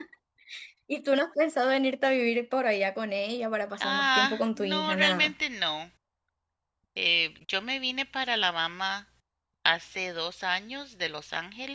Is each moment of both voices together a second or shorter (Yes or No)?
No